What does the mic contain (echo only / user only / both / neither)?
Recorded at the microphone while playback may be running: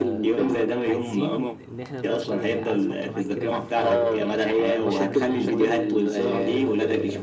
both